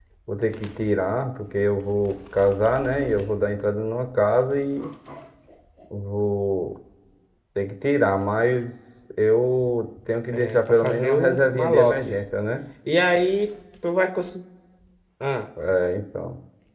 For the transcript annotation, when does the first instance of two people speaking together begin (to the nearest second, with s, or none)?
10 s